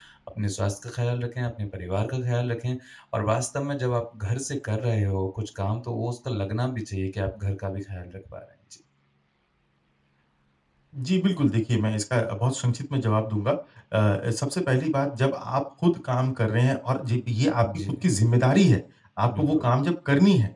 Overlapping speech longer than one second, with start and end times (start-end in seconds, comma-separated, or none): none